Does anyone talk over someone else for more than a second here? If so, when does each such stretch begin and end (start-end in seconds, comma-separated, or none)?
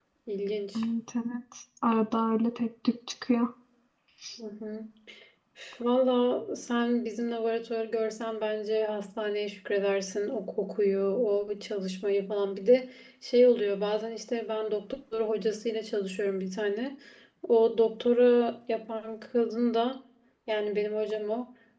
none